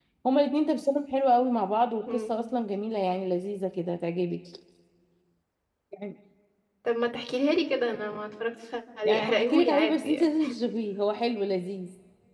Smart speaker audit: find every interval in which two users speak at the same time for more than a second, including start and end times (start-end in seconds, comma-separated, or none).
9.0-10.3